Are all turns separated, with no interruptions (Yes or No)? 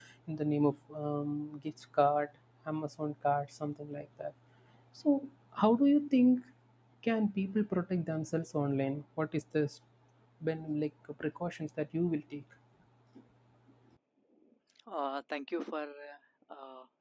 Yes